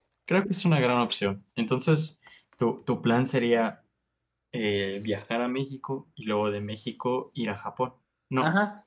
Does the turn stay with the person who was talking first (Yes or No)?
No